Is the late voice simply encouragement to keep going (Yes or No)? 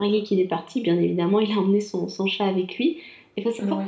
Yes